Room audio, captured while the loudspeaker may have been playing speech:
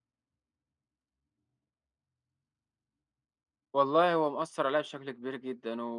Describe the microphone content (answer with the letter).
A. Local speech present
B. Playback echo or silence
A